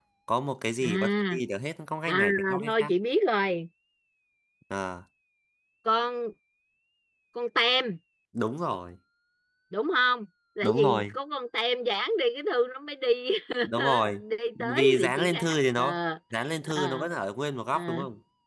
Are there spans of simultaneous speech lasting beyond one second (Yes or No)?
Yes